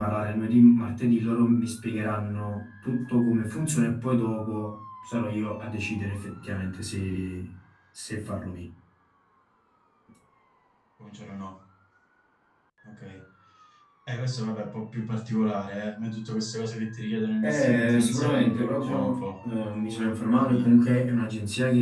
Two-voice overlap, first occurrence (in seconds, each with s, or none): 17.4 s